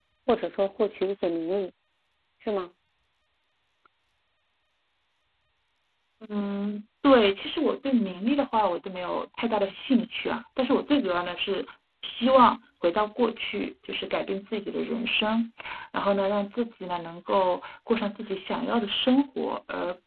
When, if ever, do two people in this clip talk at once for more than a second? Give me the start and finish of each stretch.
none

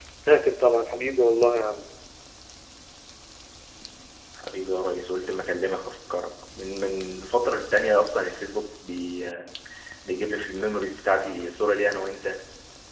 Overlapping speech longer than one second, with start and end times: none

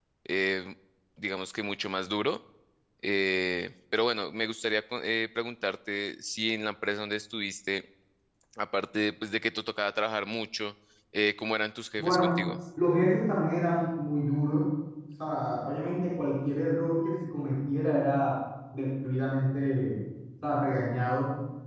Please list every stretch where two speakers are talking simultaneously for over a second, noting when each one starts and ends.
none

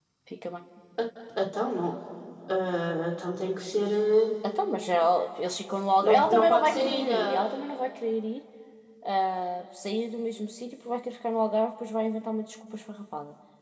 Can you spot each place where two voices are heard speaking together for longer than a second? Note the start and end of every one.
6.0-7.5

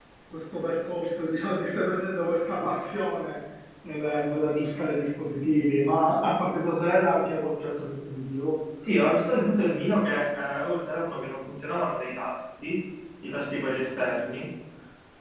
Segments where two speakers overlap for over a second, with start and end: none

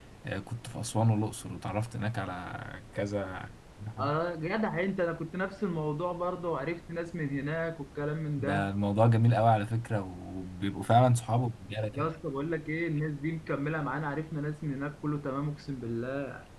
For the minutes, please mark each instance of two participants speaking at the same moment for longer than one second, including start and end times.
none

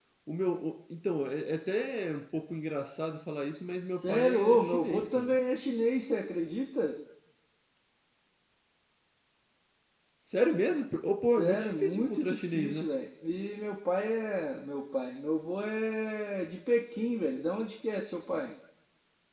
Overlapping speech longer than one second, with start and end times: 3.9-5.3, 11.2-12.9

